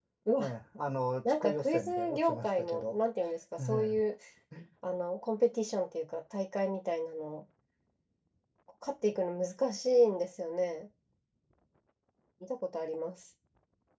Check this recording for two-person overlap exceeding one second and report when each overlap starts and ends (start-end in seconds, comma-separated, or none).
1.2-3.0